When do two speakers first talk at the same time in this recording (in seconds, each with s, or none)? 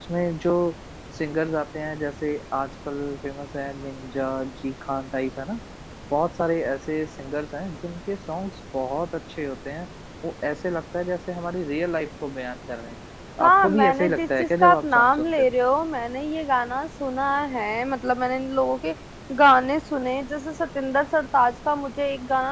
13.4 s